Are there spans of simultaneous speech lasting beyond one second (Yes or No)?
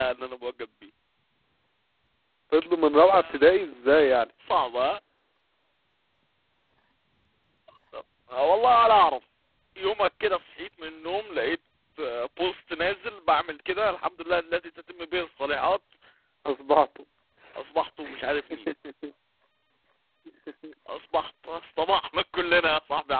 No